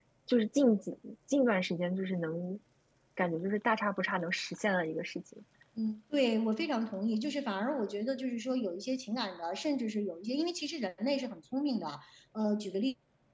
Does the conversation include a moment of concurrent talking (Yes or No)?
No